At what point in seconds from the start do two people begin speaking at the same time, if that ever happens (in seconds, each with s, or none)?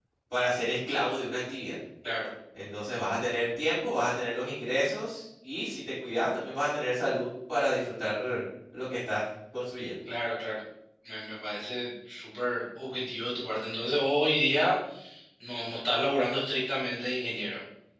none